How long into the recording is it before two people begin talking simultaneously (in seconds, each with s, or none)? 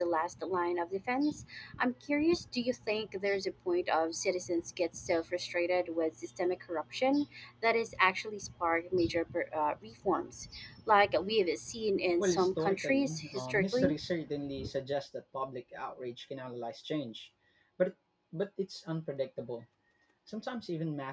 12.2 s